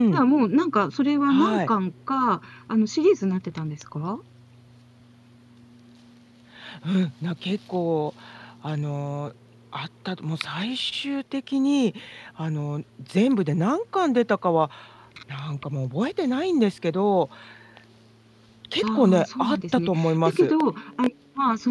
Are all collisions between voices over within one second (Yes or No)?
No